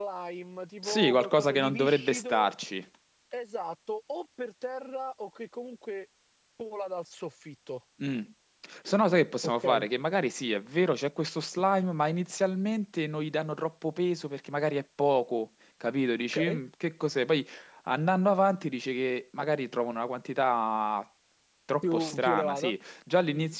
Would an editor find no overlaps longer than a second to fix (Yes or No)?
No